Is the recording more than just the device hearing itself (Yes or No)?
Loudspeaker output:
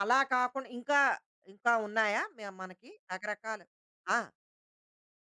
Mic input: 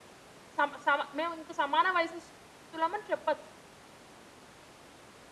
Yes